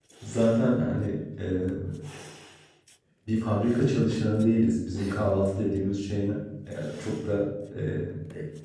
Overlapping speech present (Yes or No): No